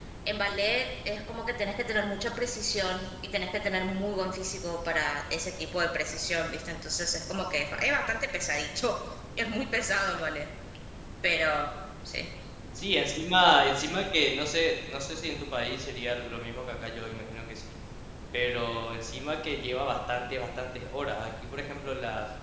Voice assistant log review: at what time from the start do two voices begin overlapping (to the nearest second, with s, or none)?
none